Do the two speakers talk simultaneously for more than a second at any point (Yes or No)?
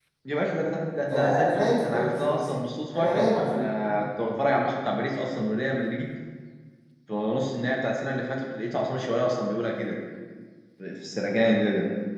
Yes